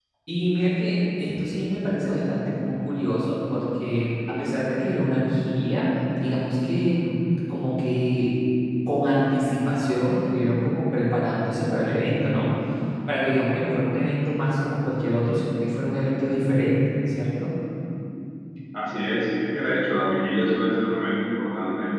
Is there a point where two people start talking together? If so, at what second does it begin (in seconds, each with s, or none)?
none